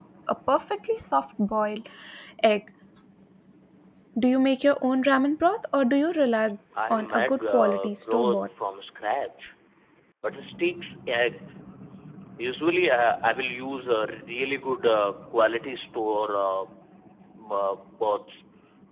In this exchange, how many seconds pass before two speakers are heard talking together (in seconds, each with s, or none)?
6.8 s